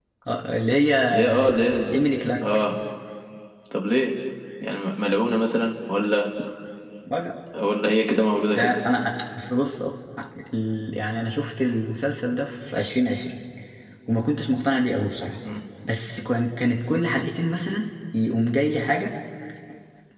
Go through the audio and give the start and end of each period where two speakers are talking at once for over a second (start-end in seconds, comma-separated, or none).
none